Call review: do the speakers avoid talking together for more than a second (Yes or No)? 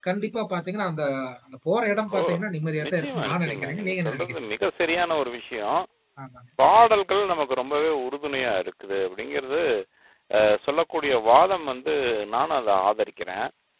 No